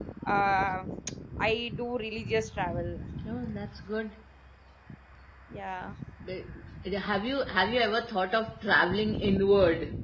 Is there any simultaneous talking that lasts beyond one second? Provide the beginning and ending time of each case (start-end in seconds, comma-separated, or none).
none